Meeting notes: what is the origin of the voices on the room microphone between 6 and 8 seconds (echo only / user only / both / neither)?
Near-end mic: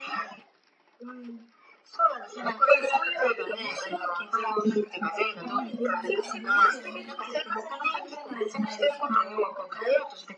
both